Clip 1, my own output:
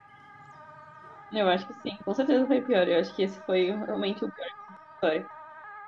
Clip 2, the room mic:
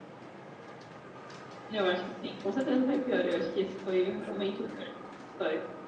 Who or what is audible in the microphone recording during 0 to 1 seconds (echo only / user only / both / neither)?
neither